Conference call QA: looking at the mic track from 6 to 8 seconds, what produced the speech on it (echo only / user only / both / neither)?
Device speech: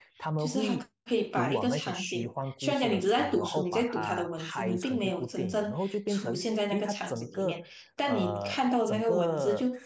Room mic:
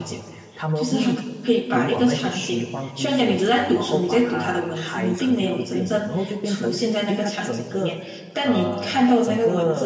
echo only